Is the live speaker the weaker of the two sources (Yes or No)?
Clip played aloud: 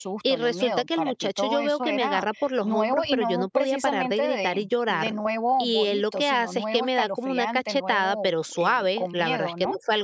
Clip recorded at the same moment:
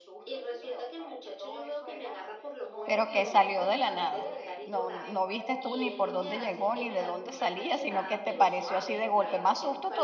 No